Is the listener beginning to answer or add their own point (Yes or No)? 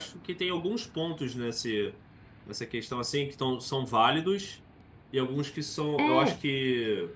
No